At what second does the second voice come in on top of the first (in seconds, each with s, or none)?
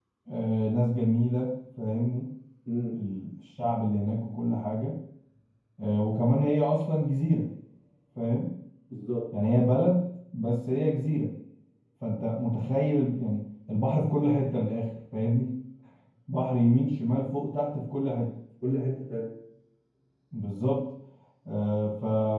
none